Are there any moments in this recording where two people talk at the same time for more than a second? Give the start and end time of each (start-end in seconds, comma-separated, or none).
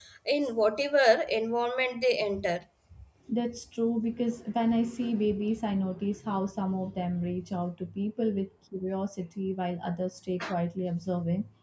none